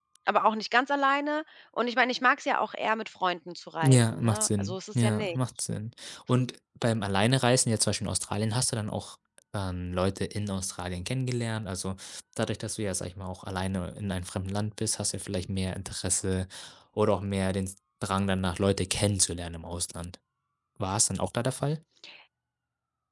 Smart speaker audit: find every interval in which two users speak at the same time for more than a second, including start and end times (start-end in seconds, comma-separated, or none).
3.8-5.4